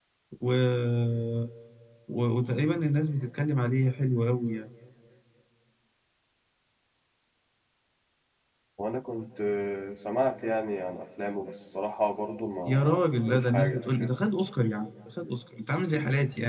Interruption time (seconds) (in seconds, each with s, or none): 12.7 s